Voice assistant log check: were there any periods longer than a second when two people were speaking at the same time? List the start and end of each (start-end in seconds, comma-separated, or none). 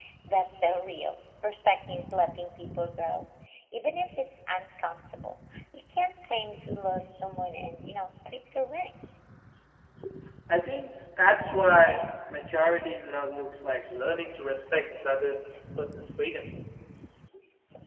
none